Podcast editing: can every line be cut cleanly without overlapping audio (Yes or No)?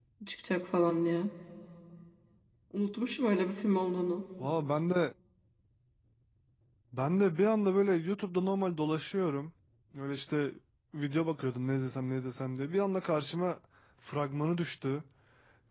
Yes